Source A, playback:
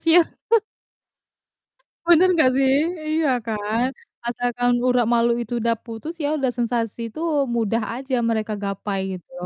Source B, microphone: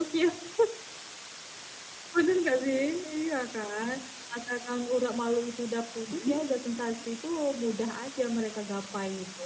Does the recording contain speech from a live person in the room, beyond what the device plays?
Yes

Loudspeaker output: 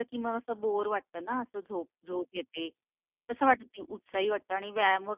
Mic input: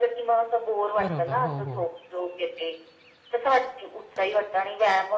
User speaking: Yes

